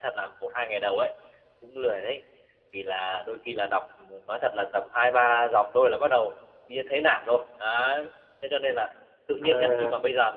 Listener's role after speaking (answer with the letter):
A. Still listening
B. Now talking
A